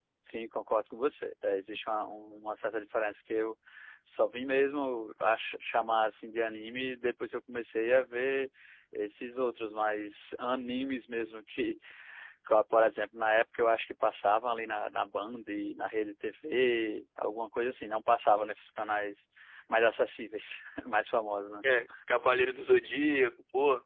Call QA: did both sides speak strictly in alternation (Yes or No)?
Yes